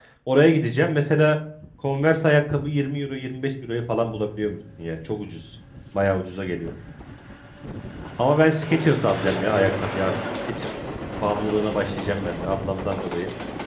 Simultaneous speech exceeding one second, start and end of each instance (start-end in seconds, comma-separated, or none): 8.6-10.1